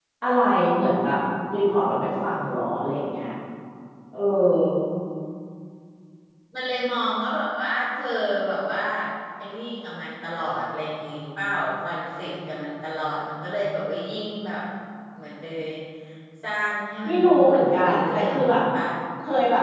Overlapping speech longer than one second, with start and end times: 17.1-18.6

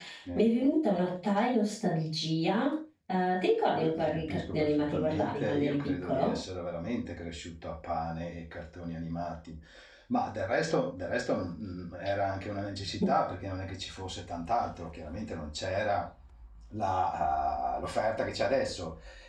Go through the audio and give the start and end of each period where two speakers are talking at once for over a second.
3.7-6.4

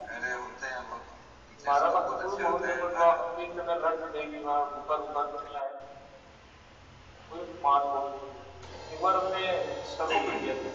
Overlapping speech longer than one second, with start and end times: 1.6-3.1

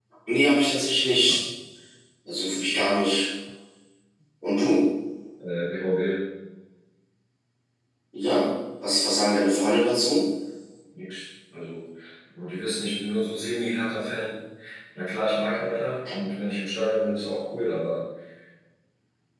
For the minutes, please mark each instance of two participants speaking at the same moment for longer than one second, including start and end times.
none

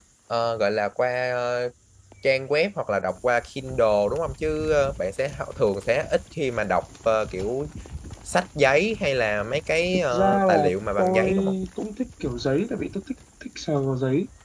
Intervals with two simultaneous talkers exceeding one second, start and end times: 10.1-11.4

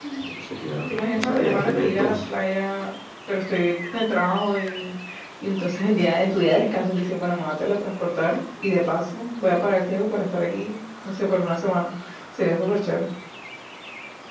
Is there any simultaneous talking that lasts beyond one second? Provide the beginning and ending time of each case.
0.9-2.3

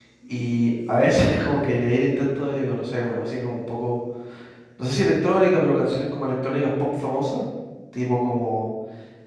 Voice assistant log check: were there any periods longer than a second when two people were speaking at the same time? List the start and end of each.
none

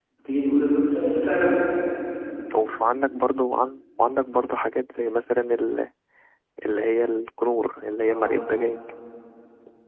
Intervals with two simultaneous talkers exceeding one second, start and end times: none

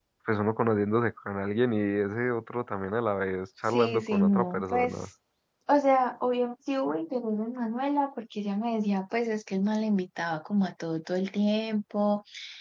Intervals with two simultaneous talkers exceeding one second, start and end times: 3.6-5.1

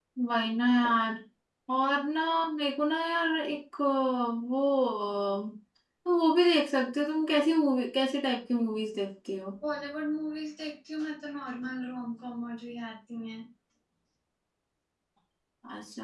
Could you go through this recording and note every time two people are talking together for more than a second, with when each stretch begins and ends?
none

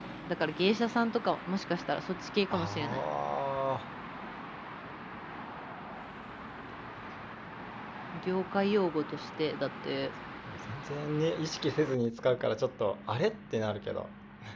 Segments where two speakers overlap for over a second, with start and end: none

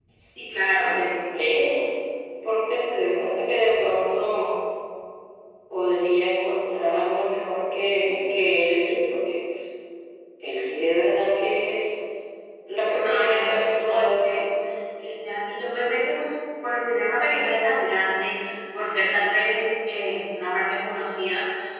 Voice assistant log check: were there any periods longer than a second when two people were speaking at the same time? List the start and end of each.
13.0-14.2

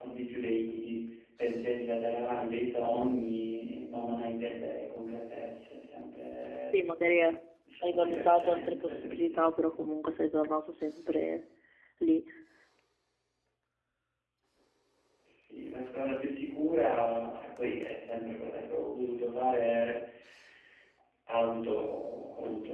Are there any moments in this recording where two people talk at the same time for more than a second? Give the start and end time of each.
7.8-9.7

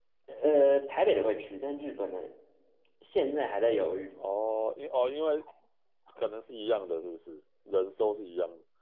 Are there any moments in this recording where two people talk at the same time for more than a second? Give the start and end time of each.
none

